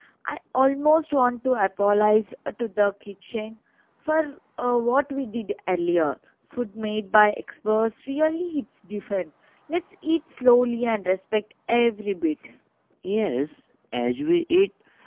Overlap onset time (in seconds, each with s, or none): none